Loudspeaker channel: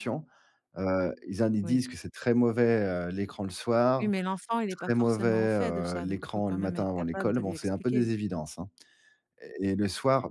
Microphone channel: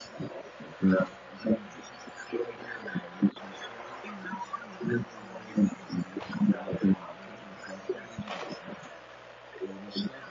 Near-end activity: none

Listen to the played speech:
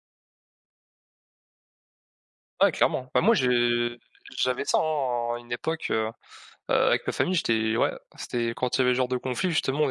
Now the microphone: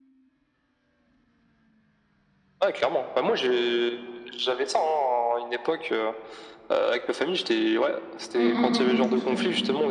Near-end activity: present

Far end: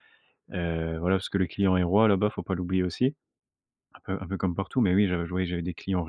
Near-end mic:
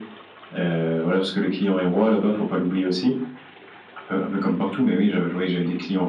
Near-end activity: none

